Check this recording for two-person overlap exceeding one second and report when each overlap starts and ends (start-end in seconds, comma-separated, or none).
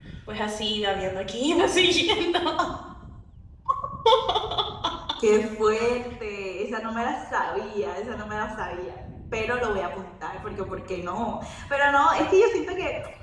none